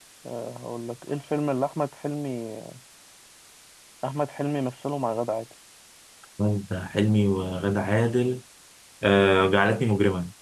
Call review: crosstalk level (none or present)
none